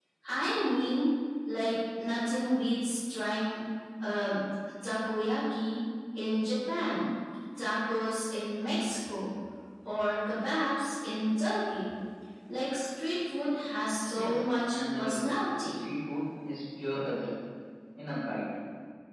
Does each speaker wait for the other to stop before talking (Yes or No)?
No